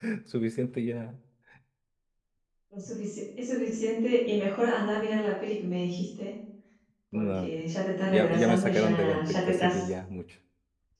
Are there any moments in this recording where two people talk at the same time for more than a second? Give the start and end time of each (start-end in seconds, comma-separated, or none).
8.1-9.9